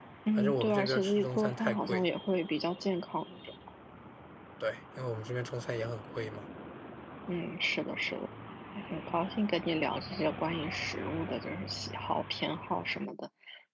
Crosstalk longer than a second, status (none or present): present